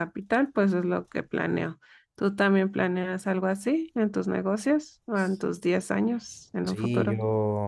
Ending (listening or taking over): taking over